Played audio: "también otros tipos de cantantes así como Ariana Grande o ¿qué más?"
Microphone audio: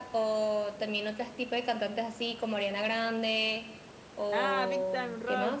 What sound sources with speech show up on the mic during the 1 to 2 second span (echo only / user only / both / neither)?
echo only